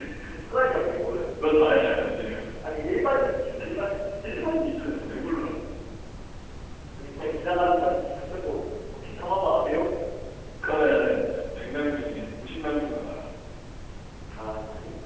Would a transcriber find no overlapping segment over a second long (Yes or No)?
Yes